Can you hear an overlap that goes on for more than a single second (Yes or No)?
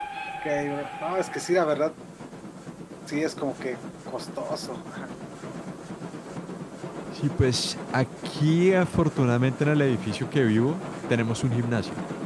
No